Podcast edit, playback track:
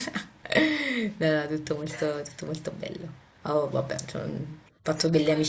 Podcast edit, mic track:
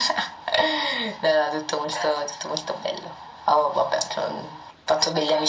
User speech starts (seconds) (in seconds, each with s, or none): none